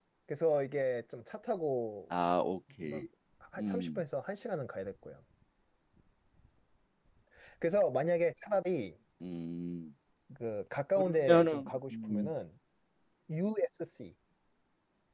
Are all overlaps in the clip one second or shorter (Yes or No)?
No